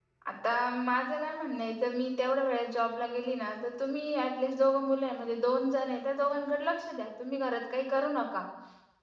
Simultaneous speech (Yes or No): No